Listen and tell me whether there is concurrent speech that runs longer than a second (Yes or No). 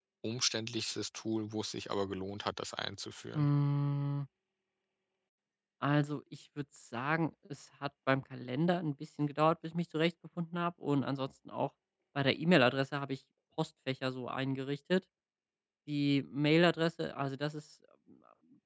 No